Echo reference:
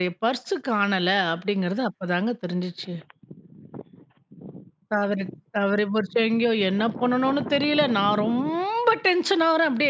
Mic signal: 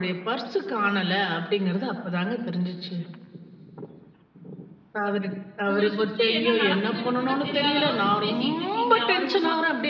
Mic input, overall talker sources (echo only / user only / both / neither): both